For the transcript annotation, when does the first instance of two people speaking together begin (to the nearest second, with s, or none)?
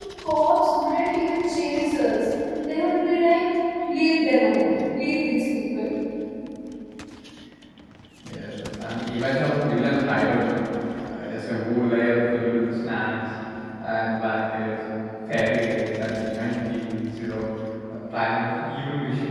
none